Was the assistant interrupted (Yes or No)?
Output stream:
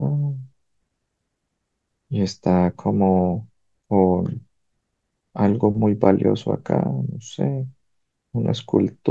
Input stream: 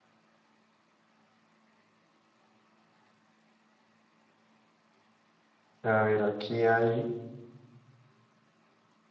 Yes